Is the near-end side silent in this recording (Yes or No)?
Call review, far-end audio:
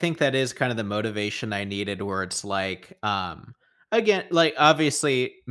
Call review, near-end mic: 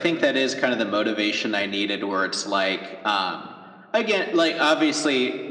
Yes